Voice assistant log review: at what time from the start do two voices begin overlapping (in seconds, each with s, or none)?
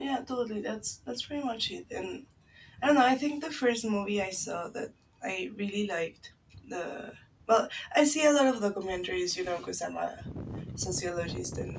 none